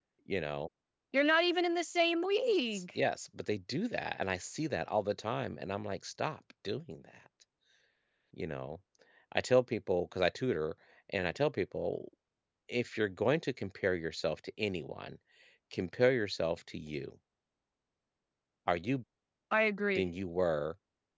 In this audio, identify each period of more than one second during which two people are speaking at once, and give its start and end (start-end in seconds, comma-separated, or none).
none